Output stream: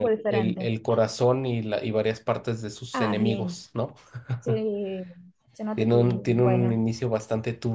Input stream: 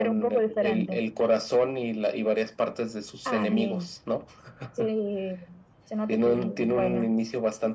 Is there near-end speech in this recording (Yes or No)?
No